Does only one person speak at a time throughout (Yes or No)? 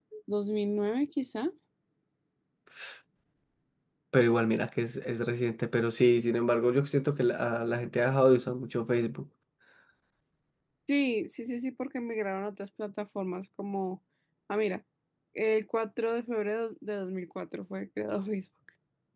Yes